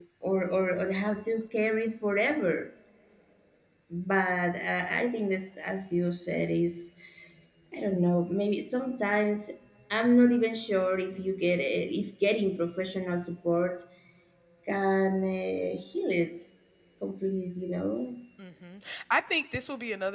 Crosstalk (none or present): none